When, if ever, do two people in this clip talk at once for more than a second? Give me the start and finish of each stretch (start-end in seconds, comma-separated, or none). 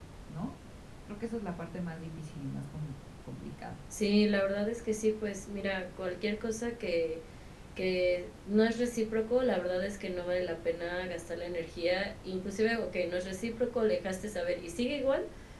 none